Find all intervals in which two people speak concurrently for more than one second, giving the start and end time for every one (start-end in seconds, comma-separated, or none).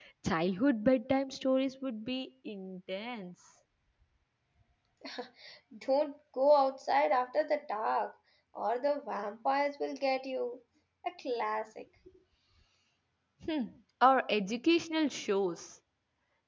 none